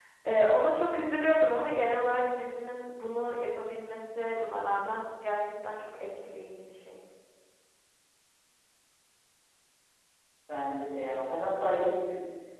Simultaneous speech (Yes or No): No